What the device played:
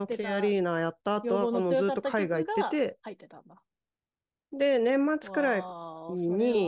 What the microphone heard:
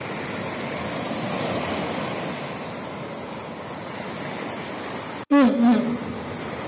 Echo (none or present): none